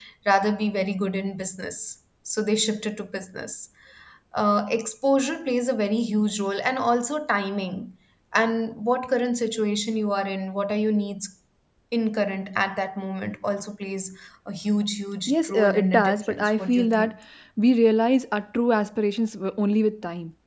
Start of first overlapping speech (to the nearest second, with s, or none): 15 s